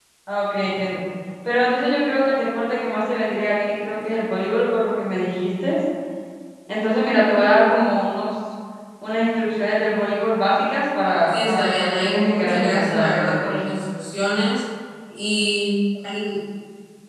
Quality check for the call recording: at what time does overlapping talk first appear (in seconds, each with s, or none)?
11.3 s